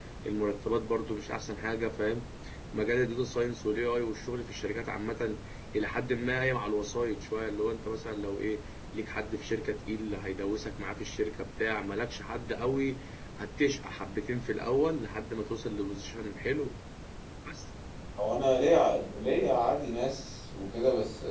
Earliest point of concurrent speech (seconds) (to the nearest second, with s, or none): none